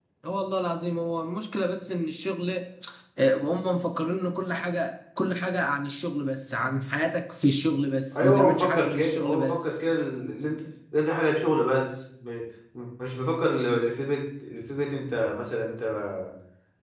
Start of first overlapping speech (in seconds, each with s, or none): 8.1 s